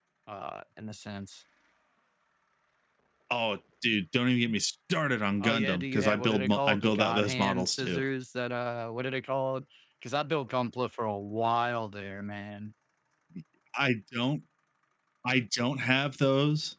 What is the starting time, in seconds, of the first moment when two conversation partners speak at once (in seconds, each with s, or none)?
5.4 s